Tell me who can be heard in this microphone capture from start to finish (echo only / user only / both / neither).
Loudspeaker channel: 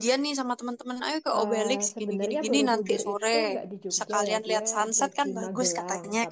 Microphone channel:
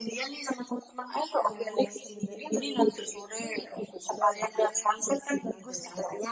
echo only